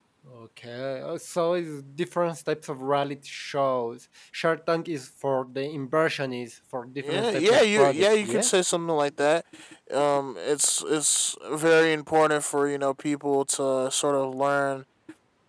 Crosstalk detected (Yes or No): Yes